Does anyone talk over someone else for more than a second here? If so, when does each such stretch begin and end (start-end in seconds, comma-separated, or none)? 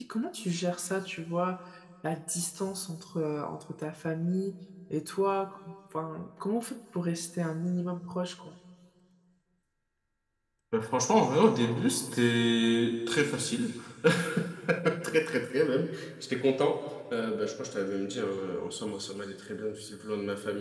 none